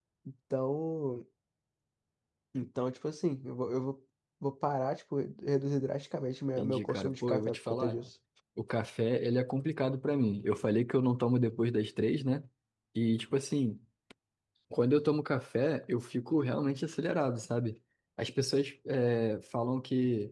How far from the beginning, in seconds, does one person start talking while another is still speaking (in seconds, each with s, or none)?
6.6 s